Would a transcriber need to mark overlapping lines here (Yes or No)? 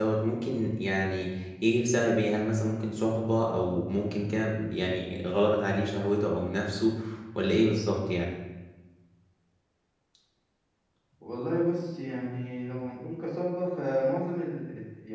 No